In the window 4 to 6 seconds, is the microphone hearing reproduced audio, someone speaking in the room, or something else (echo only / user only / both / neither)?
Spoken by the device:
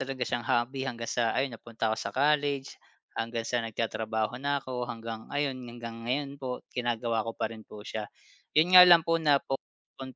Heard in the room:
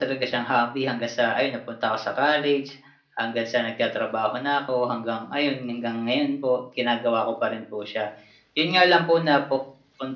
echo only